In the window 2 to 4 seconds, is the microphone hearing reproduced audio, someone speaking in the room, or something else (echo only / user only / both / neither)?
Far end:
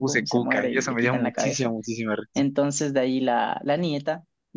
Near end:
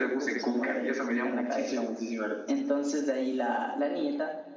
echo only